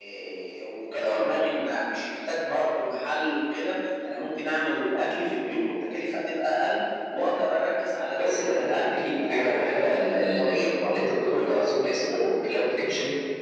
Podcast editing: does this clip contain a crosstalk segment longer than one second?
Yes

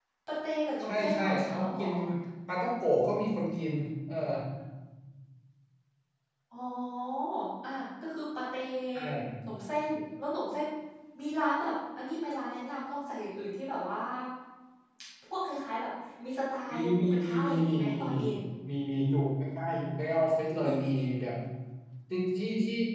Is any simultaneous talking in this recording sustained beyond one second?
Yes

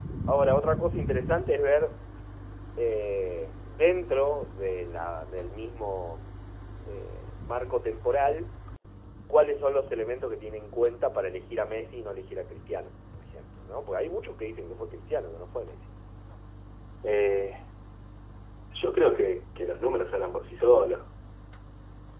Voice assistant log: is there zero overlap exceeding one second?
Yes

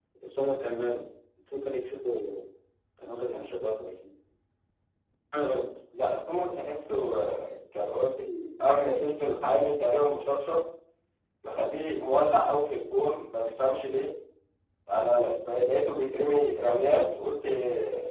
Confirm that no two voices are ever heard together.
Yes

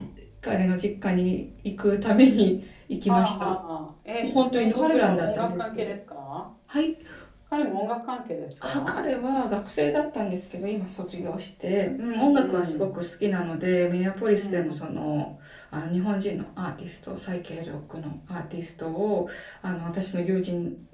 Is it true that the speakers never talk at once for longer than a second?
No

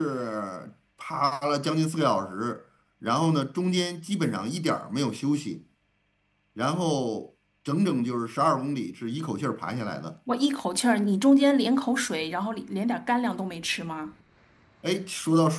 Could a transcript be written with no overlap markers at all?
Yes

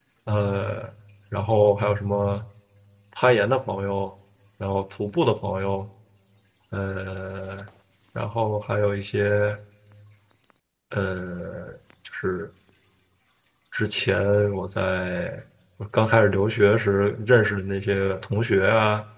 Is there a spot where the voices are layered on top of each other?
No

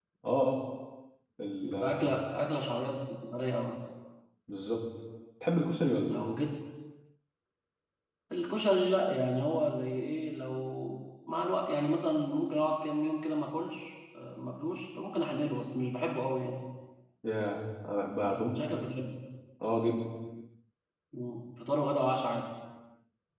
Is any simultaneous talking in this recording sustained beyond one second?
No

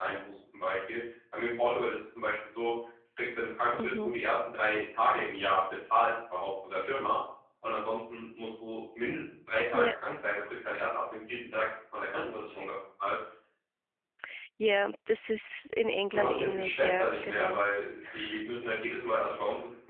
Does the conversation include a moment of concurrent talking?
Yes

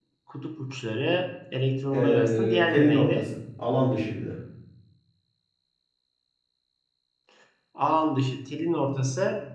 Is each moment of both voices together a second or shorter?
No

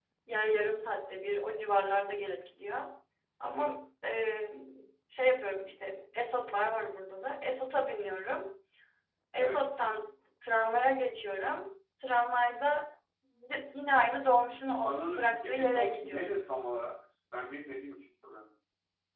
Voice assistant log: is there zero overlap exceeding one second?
No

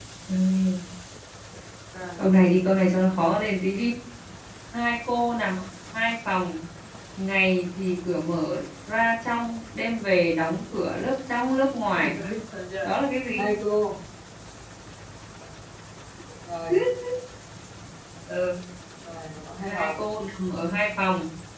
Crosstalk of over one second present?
No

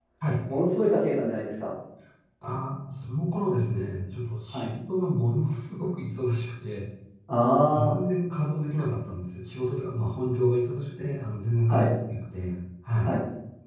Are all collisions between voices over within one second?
Yes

